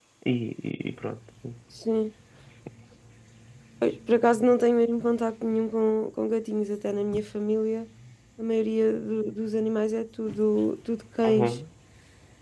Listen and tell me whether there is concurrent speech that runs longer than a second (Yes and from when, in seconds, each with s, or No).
No